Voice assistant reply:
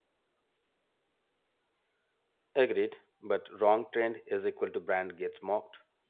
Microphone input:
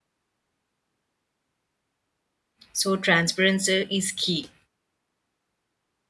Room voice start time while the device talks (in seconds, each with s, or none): 2.7 s